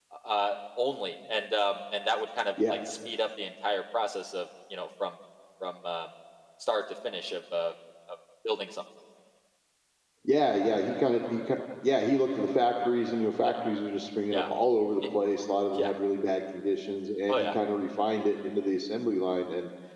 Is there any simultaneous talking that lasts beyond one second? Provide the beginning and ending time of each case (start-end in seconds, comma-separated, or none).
none